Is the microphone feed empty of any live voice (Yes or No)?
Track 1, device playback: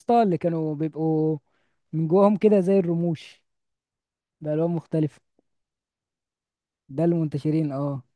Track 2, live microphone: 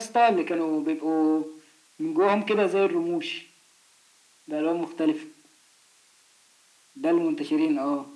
Yes